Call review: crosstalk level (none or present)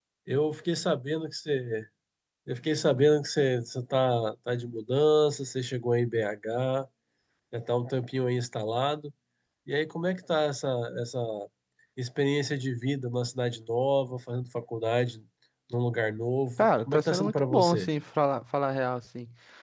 present